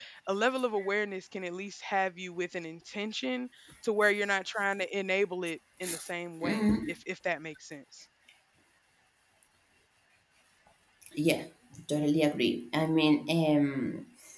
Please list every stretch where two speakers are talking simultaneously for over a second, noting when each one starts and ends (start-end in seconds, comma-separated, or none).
none